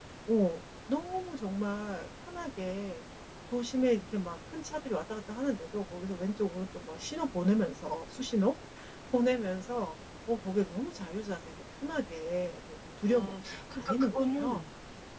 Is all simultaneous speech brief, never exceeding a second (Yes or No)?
No